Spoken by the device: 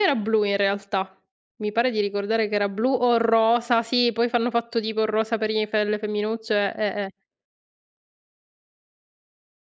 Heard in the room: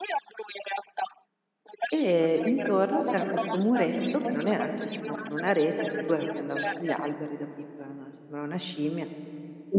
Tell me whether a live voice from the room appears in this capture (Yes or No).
Yes